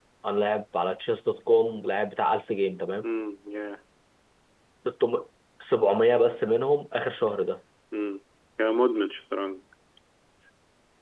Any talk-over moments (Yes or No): No